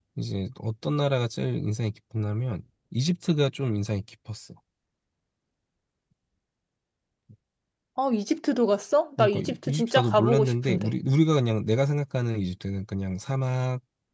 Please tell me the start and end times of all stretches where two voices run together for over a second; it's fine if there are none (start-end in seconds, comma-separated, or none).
9.2-10.9